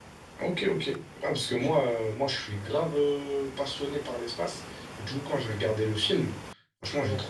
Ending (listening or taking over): listening